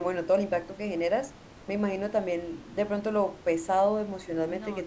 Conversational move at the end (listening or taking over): listening